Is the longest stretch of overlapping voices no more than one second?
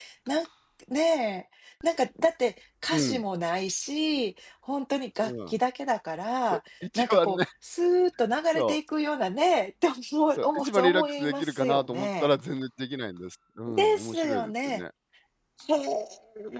No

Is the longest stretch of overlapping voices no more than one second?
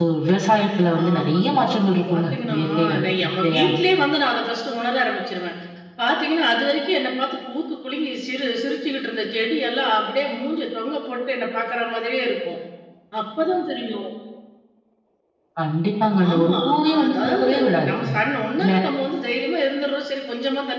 No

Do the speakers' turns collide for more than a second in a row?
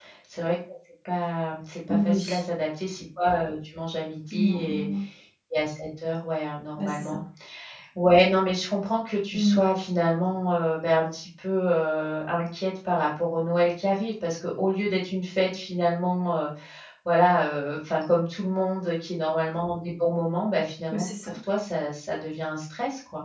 No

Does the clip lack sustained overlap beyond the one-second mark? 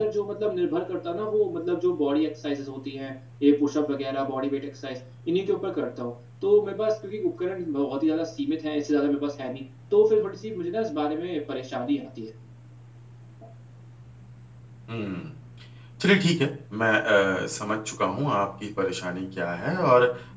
Yes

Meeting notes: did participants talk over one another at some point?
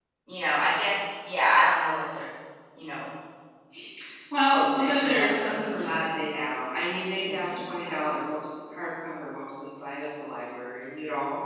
Yes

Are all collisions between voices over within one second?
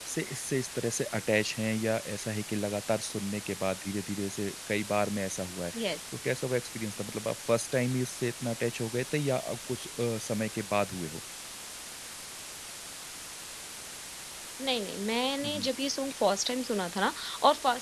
Yes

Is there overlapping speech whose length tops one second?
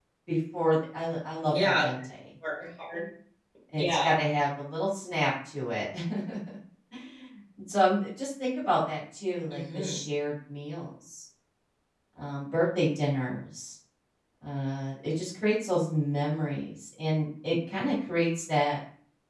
No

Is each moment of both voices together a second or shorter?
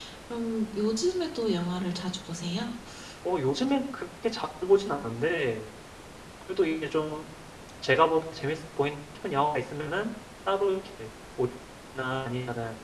Yes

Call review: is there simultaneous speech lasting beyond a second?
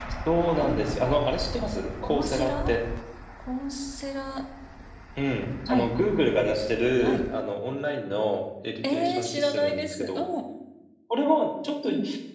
Yes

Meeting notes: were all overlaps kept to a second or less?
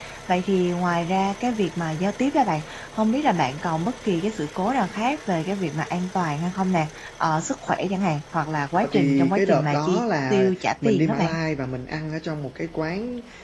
No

